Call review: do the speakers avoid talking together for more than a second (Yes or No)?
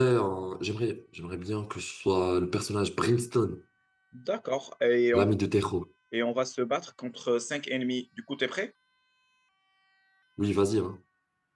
Yes